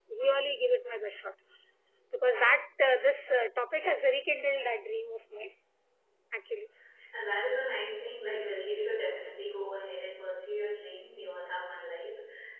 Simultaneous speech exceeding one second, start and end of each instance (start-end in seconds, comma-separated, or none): none